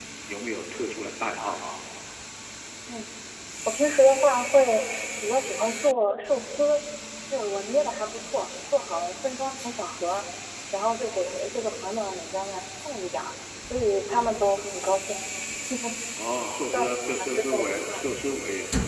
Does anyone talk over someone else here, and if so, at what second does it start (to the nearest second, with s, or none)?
17 s